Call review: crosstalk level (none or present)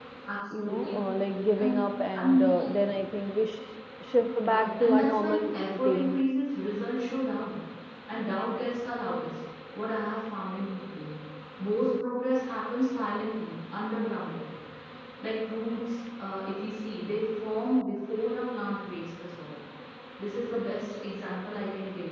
present